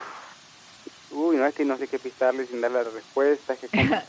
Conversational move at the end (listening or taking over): taking over